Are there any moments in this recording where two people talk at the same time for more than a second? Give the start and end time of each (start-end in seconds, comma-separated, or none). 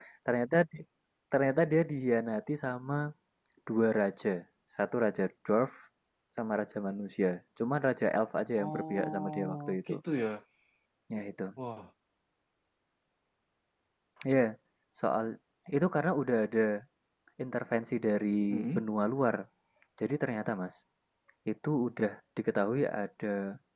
8.6-10.0